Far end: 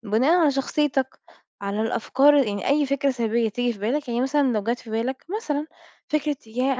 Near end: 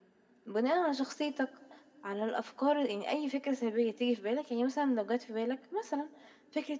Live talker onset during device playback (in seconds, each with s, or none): none